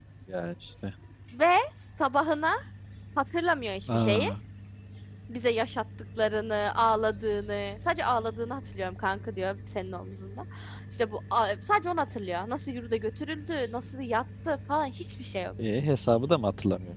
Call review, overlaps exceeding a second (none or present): none